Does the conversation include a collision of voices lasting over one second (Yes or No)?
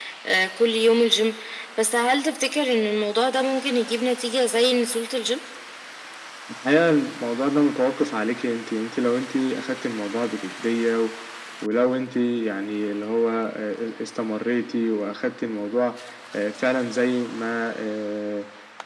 No